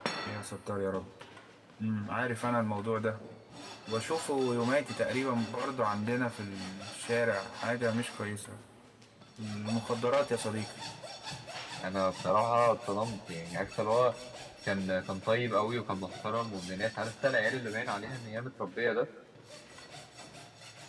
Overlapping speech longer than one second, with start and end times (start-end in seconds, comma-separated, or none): none